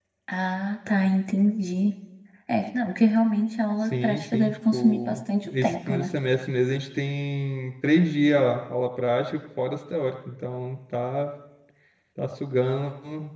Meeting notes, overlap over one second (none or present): present